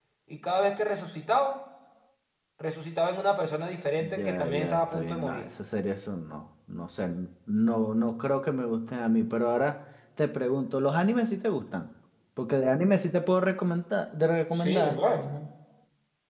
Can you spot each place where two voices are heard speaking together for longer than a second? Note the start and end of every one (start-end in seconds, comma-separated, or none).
4.0-5.4